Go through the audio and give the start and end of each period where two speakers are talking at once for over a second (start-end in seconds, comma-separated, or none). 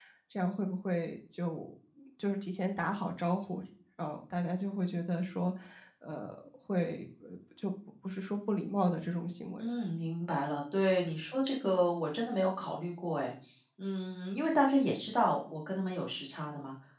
none